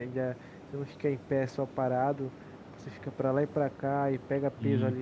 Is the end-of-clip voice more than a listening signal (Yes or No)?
No